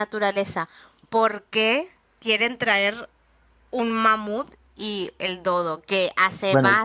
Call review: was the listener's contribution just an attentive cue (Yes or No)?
Yes